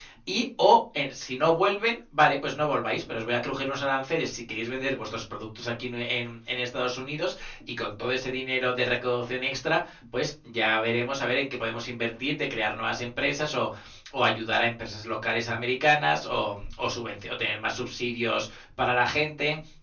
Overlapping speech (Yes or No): No